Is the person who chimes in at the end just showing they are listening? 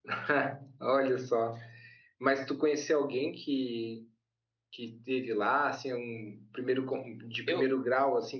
Yes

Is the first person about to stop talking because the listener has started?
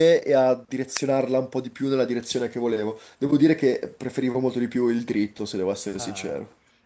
Yes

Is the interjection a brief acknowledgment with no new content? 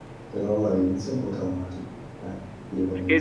Yes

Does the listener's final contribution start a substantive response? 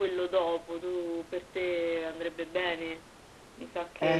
Yes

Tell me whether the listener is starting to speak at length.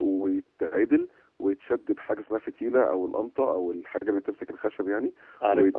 No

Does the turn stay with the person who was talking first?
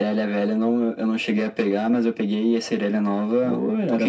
No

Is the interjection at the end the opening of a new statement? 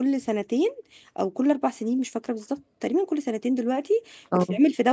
No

